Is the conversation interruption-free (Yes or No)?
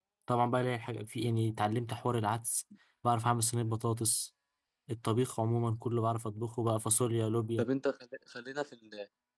Yes